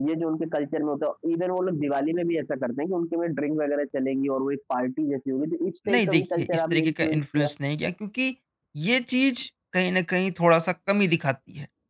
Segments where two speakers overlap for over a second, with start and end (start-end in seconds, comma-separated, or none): 5.9-7.5